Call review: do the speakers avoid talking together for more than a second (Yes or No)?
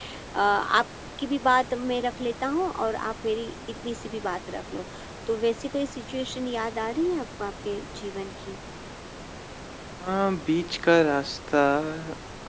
Yes